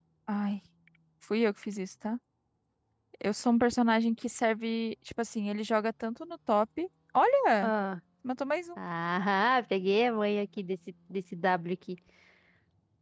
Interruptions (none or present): none